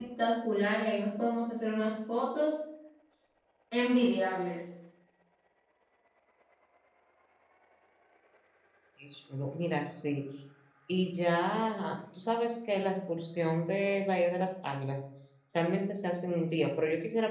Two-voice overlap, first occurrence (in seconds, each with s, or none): none